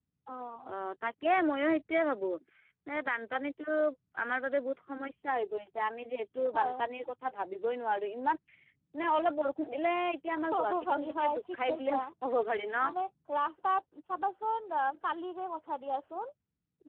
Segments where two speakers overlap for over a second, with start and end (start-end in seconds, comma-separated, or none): 10.5-12.0